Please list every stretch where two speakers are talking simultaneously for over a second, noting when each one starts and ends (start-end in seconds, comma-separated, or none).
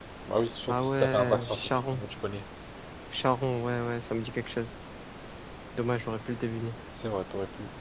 0.7-2.0